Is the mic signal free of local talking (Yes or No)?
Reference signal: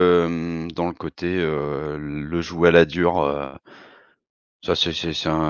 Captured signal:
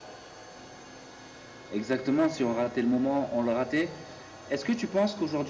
No